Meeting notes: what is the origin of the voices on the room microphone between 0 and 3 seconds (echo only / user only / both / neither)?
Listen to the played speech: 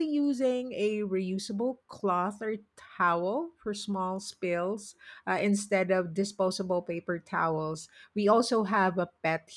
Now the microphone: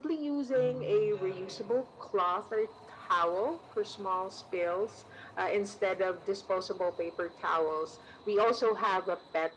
both